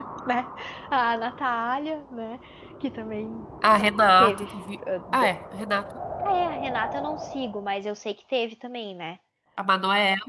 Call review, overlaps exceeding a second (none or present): none